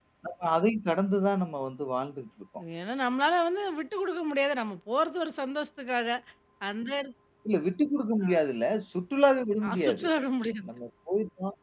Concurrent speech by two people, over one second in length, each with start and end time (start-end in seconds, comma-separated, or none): none